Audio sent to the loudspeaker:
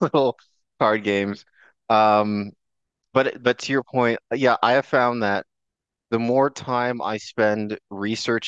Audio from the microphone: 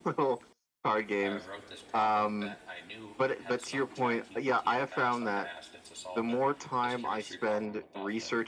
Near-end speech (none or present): present